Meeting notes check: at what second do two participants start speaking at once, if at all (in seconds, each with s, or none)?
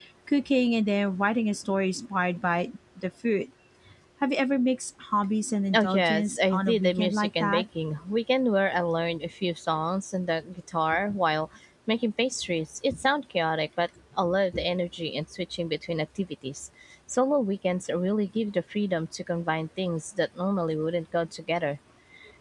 5.7 s